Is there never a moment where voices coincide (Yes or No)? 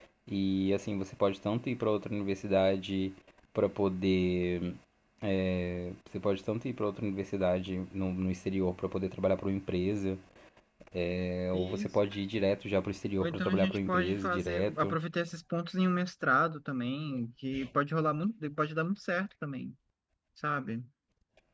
No